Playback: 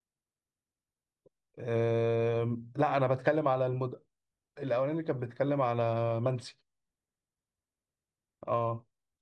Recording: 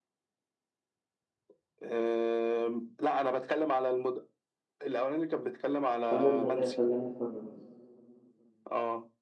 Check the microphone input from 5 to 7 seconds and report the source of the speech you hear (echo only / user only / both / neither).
both